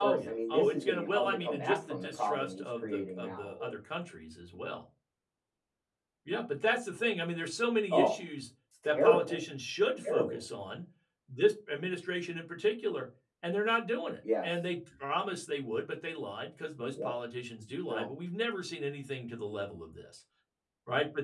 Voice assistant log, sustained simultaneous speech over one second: present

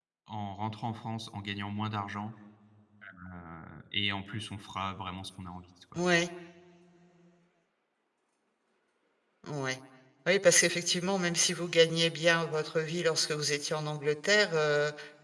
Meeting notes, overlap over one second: none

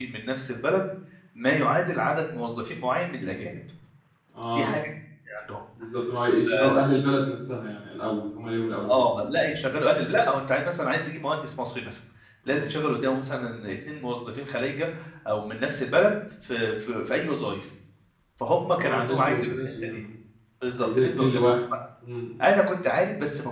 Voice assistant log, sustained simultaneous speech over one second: present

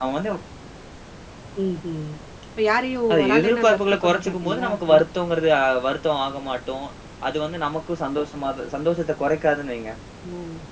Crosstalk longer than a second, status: present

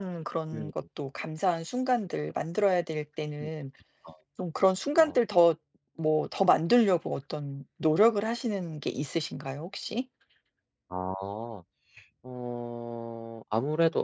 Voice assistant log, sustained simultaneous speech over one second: none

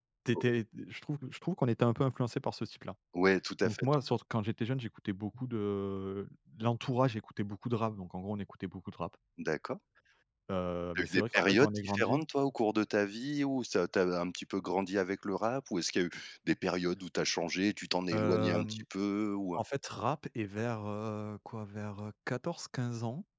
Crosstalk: present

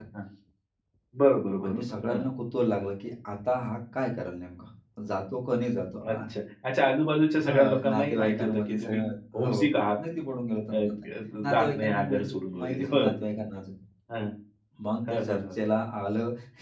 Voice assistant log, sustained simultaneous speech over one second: present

